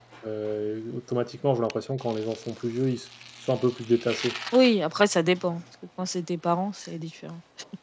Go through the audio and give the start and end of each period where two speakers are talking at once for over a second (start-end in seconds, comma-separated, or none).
none